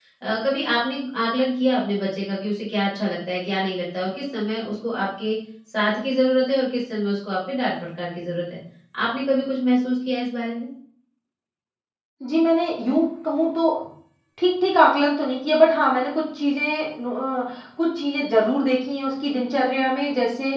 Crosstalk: none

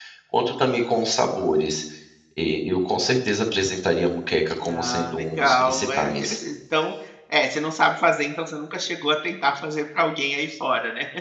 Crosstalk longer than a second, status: present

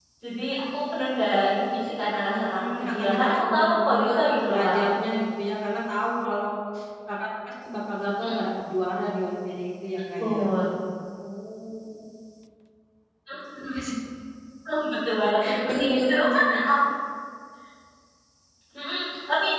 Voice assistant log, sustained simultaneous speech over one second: present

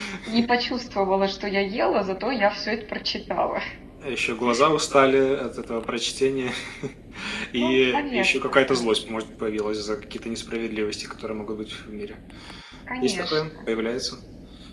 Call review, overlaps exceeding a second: present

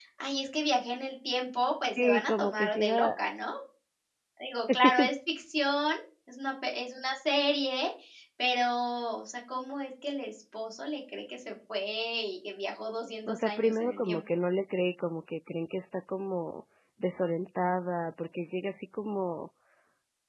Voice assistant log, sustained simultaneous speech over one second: present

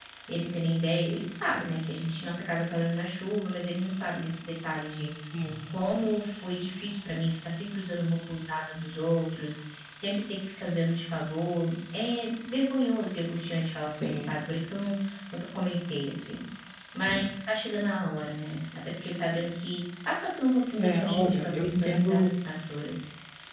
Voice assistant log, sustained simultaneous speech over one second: present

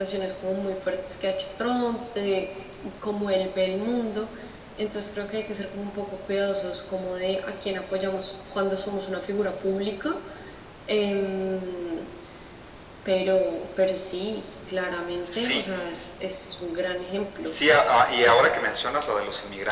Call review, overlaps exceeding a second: none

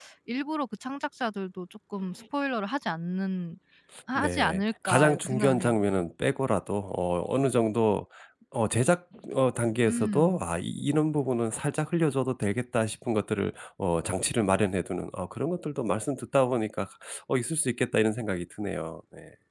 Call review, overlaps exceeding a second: present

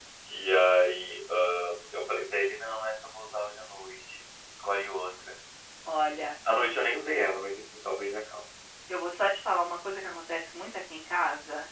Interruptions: none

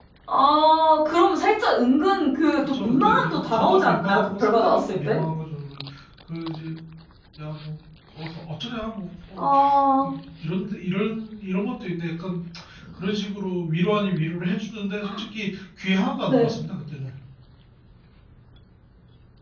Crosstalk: present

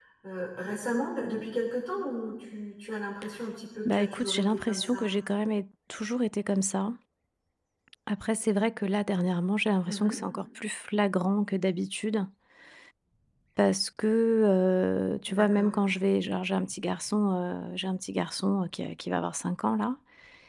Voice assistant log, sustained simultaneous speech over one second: present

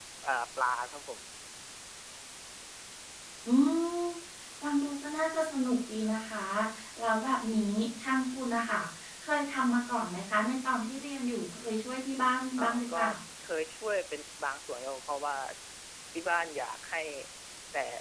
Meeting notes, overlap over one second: none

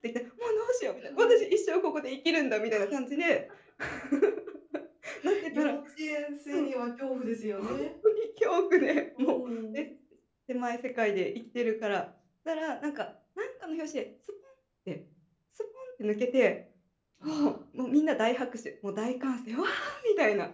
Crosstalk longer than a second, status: none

